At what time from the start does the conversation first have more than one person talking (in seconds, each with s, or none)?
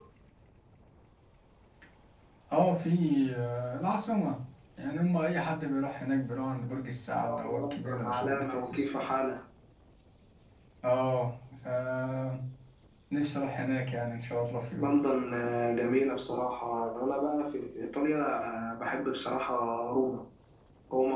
7.2 s